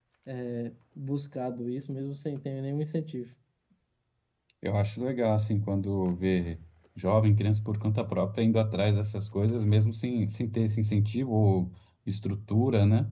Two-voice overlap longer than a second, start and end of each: none

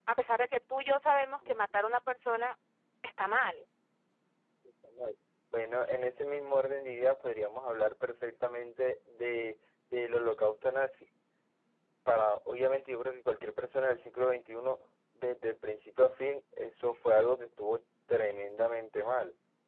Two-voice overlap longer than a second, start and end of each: none

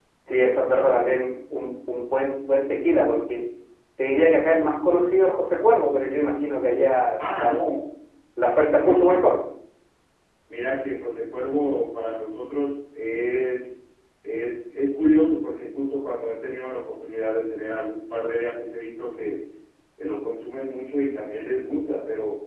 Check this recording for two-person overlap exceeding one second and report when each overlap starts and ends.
none

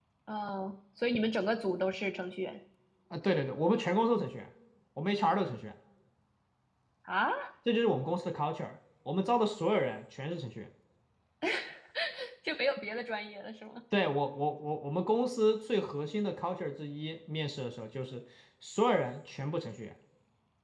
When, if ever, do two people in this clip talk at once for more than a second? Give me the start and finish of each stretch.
none

